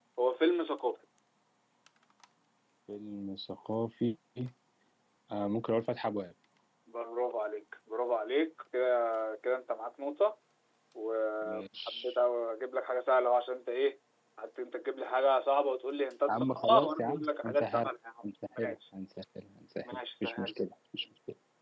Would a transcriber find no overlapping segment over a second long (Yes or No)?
No